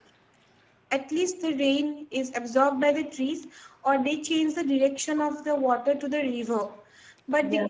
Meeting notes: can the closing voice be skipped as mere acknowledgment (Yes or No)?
Yes